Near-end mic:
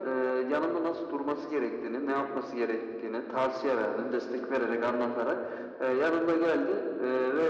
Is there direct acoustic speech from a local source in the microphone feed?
No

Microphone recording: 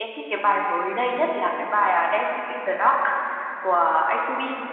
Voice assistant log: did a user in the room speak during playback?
Yes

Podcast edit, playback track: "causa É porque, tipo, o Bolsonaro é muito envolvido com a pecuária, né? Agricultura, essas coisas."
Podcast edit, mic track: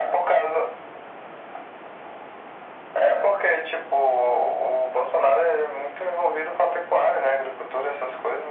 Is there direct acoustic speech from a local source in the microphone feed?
No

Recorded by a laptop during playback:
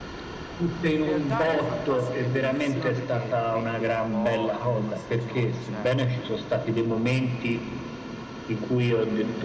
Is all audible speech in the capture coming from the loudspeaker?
No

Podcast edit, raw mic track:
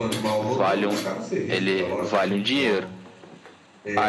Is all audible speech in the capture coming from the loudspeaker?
No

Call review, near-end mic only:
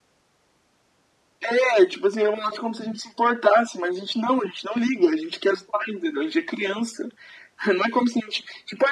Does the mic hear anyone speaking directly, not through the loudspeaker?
No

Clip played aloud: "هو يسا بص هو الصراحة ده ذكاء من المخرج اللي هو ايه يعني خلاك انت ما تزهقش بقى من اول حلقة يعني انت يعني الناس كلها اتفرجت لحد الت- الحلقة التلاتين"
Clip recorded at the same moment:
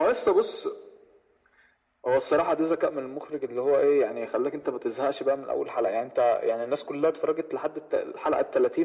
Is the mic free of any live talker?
Yes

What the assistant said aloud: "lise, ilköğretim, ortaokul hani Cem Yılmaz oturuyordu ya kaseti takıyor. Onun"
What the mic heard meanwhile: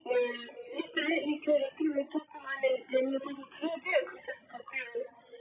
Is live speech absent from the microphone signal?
Yes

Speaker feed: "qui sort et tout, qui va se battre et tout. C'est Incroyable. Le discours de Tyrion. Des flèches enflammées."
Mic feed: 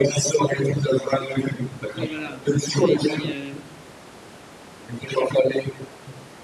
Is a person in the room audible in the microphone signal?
Yes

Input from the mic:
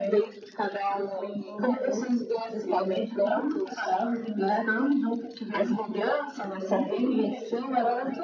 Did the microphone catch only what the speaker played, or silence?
Yes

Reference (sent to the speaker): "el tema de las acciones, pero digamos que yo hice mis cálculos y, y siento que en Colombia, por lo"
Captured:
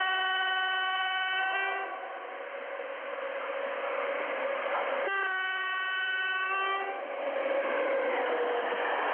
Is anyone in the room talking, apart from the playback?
No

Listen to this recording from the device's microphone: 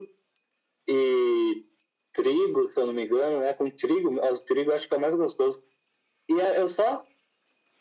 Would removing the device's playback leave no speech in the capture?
Yes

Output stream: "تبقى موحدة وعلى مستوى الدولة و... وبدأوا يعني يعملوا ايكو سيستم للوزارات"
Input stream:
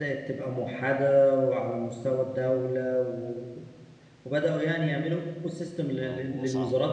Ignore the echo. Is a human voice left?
Yes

